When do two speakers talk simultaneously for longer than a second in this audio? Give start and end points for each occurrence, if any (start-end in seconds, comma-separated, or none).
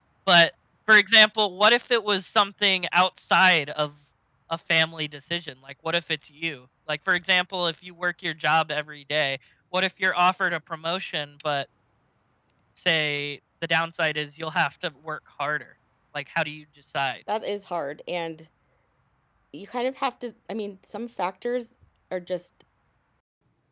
none